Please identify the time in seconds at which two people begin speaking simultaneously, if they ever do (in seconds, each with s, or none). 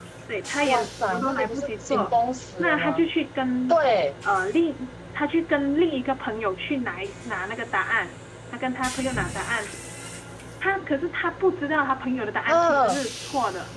0.6 s